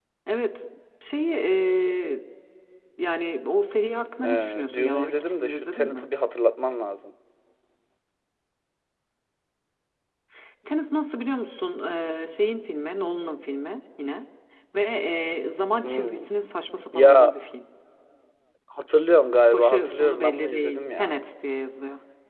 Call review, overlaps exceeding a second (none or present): present